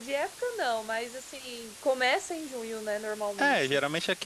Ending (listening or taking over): taking over